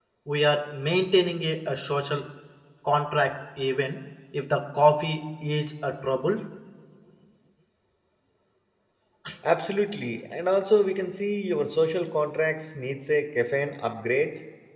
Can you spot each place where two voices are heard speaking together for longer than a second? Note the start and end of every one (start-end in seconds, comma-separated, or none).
none